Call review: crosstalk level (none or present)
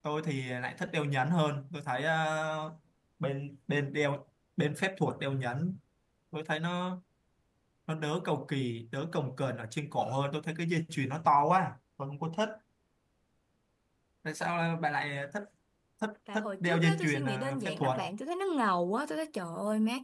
present